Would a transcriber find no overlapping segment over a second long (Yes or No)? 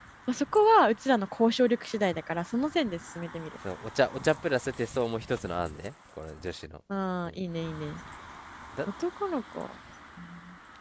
Yes